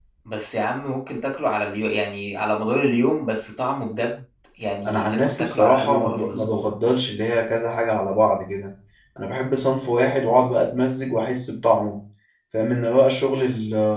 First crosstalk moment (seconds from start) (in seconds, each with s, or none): 4.8 s